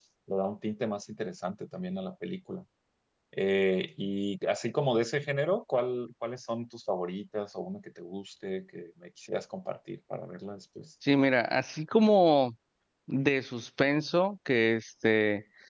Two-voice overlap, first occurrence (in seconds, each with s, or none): none